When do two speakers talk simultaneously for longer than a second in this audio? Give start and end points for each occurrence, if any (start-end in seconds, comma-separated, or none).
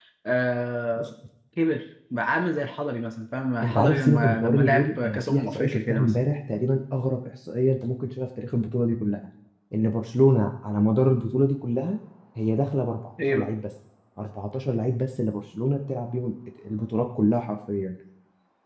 3.6-6.1